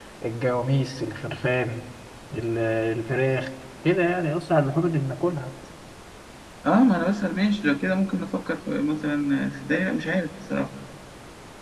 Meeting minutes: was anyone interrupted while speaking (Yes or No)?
No